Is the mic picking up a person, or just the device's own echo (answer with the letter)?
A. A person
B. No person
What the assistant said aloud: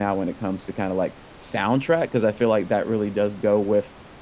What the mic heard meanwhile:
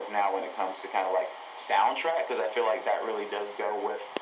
B